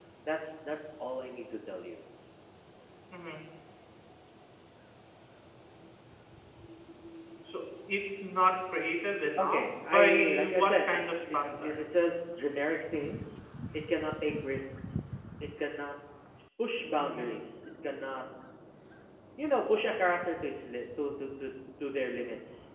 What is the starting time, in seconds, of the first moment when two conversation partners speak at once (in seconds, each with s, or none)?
9.4 s